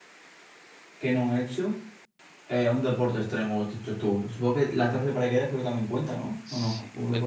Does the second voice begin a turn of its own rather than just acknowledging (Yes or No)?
Yes